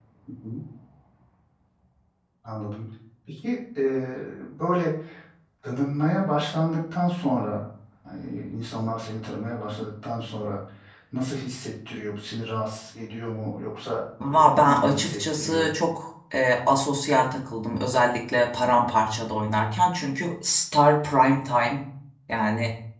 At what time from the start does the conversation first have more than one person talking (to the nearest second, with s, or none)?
14 s